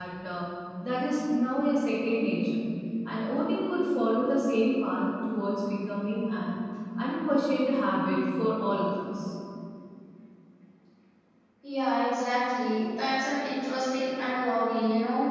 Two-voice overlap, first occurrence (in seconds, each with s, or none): none